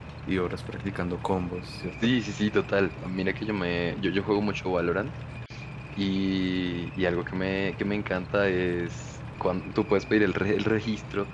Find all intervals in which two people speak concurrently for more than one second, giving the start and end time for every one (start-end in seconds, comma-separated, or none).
none